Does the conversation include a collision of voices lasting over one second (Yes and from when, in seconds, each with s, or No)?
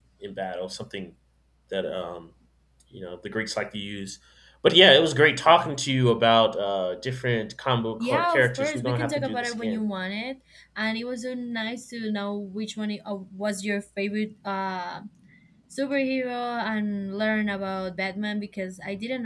Yes, from 8.0 s